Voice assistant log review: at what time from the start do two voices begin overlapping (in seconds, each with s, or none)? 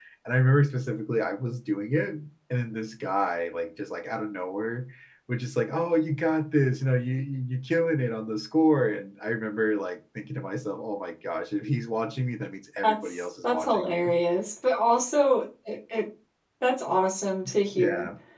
12.8 s